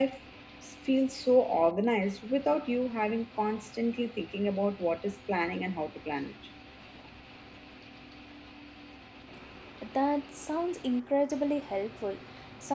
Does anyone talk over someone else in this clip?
No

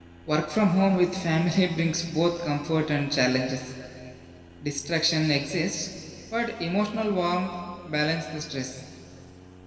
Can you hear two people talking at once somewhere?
No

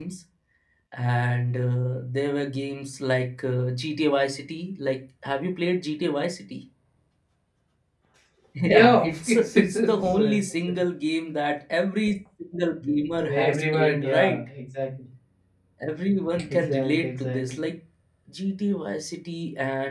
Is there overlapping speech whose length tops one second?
Yes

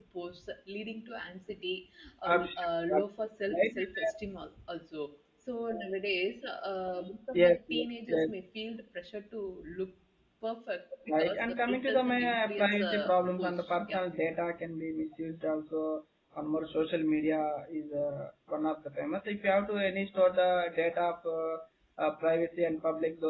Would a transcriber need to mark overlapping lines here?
Yes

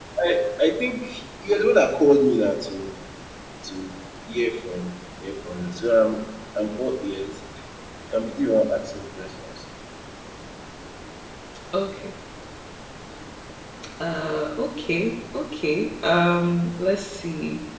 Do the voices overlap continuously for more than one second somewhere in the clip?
No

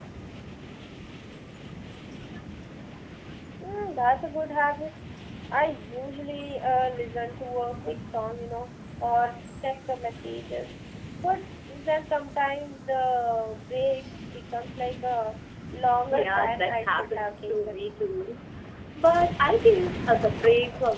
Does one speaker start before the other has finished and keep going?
Yes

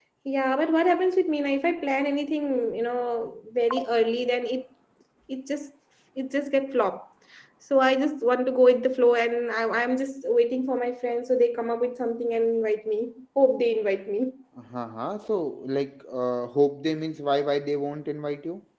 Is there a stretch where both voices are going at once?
No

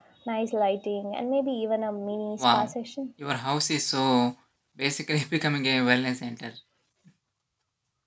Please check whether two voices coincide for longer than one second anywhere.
No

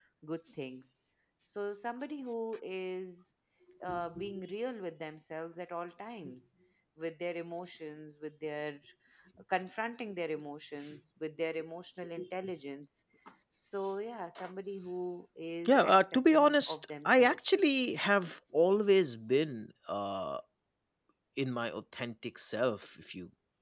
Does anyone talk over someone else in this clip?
Yes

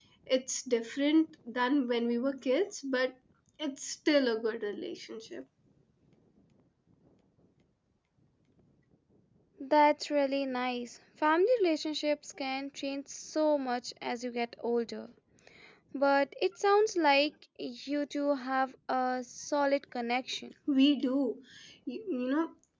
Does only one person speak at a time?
Yes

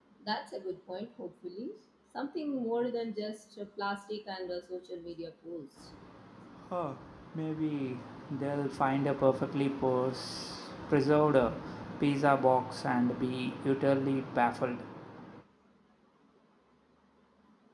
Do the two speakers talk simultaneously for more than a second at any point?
No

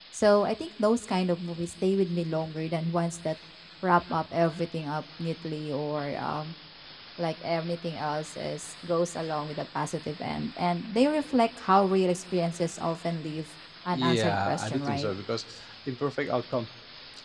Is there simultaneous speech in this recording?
Yes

